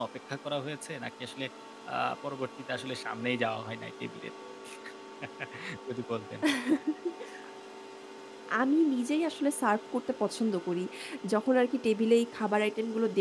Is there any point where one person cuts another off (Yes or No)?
No